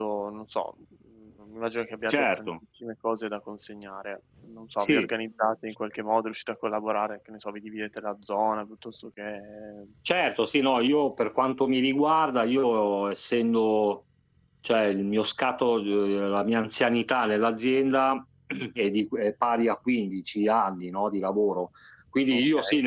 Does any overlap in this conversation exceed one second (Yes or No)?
No